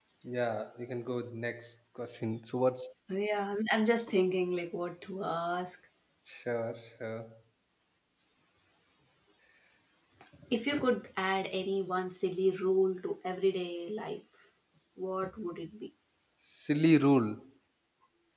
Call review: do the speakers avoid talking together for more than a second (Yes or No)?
Yes